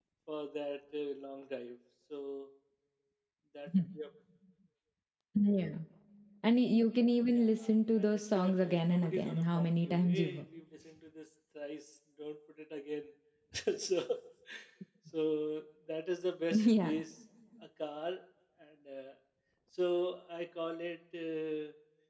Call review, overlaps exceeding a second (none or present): present